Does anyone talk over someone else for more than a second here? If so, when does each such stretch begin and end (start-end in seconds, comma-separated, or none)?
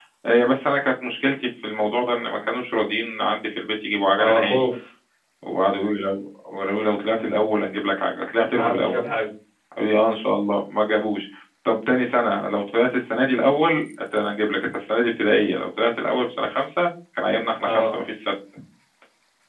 none